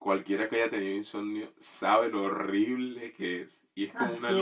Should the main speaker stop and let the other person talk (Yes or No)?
No